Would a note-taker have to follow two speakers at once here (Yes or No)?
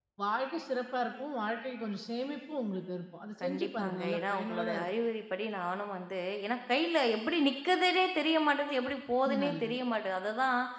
Yes